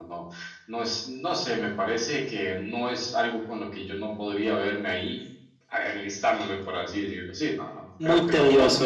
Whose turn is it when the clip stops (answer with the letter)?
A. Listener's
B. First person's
B